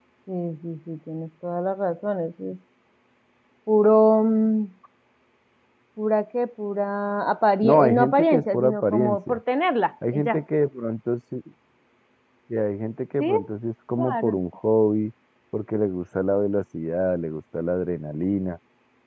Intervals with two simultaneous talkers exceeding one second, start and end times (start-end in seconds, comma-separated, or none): 7.6-9.4